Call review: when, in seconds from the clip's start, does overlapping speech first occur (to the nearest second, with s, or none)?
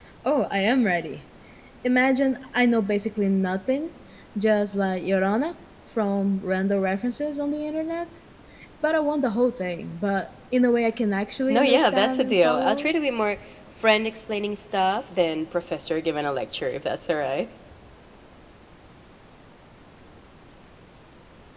11 s